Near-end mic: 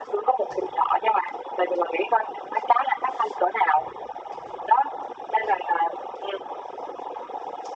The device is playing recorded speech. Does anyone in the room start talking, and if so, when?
none

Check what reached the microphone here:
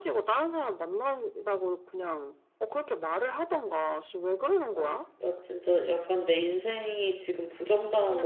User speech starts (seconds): 5 s

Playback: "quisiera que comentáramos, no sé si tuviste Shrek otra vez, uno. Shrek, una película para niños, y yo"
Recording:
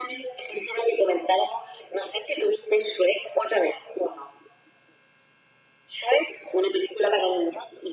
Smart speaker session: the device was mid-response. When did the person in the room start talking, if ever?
none

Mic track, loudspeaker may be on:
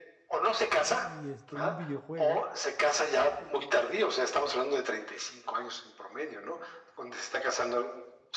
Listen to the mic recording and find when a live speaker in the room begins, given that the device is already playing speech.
1 s

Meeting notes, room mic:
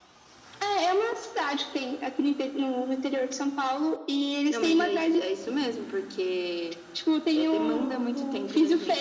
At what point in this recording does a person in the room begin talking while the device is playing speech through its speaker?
none

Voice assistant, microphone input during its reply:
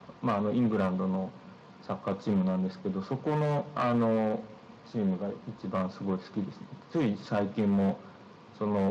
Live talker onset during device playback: none

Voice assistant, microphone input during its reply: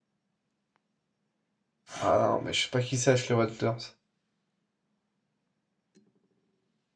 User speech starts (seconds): 2 s

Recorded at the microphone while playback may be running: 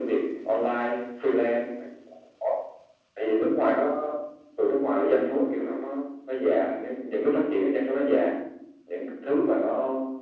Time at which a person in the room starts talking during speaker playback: none

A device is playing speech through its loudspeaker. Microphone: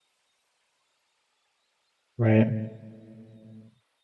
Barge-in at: 2 s

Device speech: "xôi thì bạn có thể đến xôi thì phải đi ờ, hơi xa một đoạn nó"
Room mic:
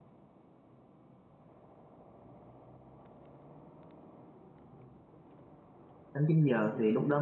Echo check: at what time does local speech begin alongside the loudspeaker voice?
6 s

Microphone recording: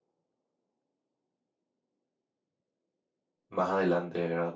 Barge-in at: 3 s

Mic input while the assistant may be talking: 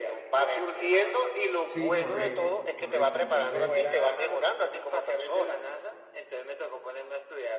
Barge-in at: 2 s

